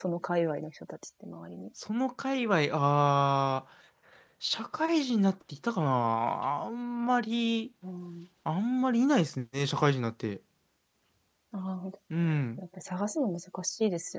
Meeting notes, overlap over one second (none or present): none